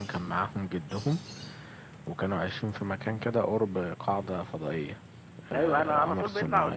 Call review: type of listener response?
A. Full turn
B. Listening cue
A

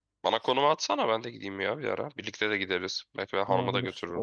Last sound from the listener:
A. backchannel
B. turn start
B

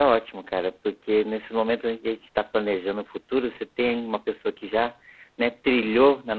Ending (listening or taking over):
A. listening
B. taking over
A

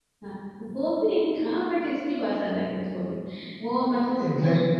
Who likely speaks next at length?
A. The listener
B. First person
B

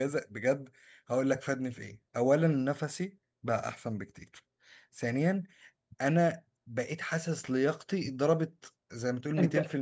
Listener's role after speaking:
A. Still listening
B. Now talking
B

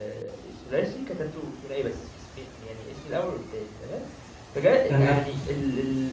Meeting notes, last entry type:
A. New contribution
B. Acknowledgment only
B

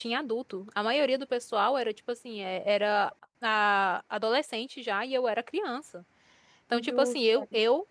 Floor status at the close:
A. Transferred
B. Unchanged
B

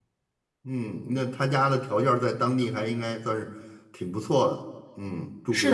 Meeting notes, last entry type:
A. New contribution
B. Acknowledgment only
A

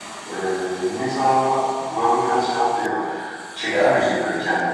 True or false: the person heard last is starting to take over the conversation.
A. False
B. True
B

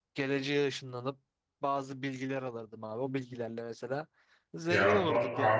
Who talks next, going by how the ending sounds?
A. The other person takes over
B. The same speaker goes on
A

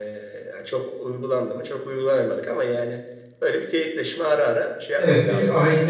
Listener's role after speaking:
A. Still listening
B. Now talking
B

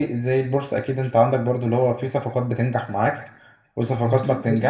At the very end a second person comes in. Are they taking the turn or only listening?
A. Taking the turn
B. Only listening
B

